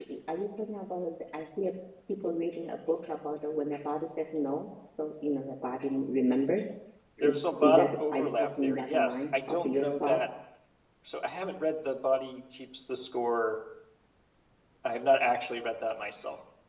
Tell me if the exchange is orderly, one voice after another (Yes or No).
No